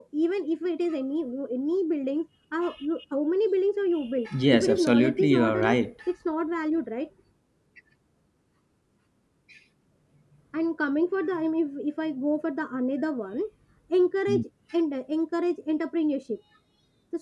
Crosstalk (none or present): present